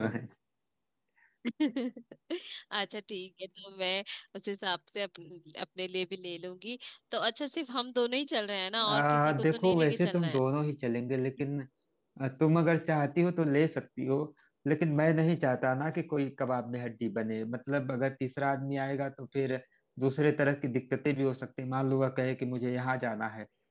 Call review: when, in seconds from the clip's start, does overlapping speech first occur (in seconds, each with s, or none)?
8.8 s